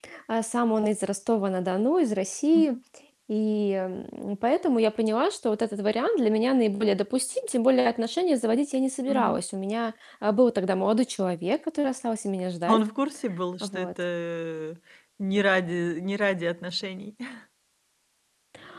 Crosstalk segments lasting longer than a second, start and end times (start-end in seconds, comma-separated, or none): none